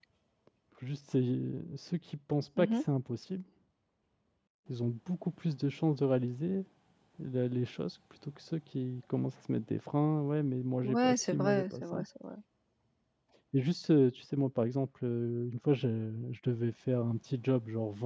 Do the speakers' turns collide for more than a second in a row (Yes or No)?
Yes